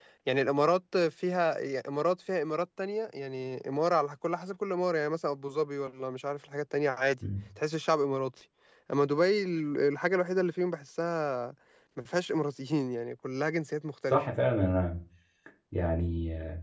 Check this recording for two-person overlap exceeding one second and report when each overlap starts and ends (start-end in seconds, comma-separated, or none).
none